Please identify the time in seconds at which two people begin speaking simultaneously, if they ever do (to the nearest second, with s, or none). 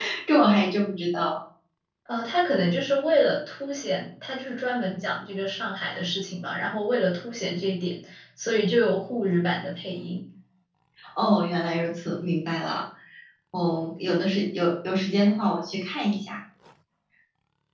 none